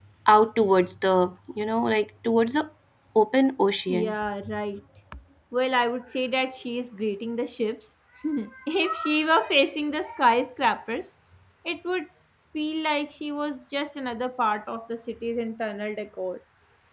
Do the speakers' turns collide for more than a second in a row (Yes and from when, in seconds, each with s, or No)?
No